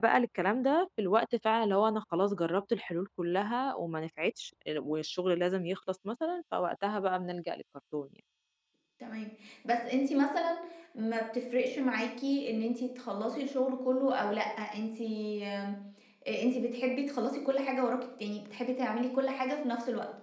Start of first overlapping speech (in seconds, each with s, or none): none